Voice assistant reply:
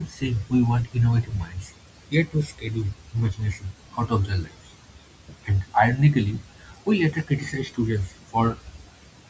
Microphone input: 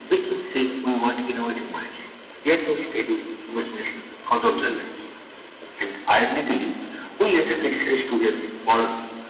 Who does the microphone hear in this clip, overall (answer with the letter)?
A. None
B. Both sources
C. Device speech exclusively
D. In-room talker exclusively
C